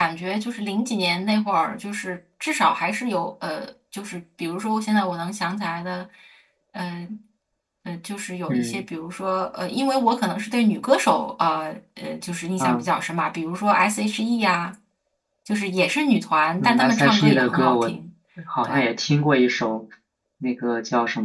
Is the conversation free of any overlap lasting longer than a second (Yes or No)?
No